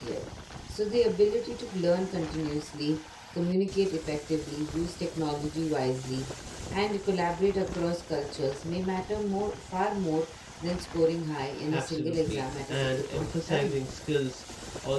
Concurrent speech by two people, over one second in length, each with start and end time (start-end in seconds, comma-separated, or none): 11.7-13.8